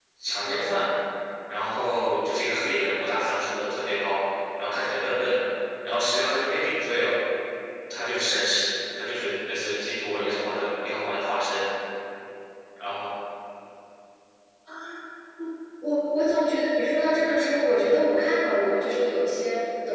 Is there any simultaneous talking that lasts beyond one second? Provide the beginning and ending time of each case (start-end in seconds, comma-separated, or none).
none